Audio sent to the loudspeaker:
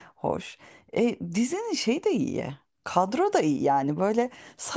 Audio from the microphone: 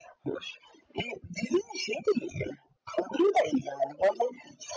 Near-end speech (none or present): none